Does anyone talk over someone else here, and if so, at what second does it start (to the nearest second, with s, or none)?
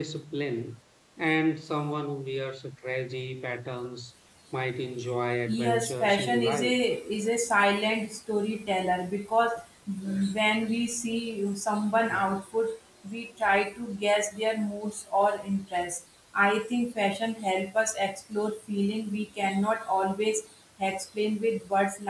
5 s